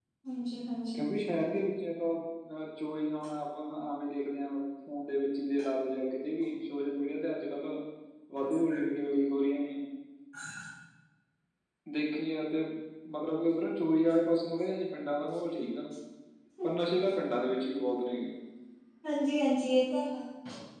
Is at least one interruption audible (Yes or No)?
No